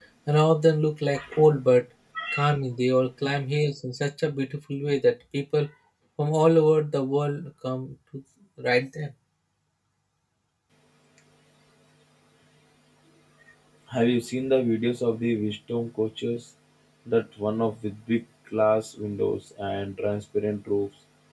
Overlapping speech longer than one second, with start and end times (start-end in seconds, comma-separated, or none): none